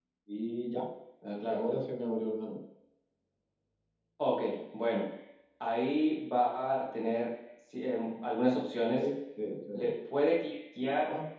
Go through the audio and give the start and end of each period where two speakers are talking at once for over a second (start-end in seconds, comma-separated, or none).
none